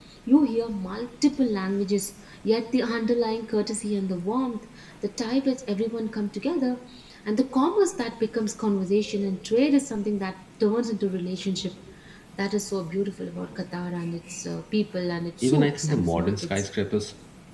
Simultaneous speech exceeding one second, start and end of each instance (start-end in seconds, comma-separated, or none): 15.4-16.6